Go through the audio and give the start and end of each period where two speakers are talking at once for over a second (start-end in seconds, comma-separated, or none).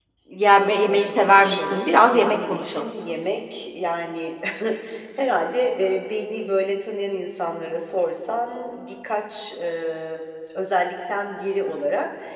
0.9-2.9